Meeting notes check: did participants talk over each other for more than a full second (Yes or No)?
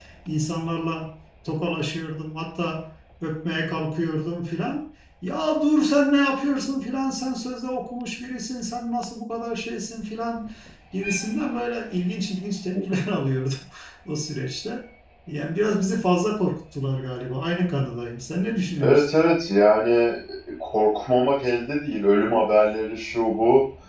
No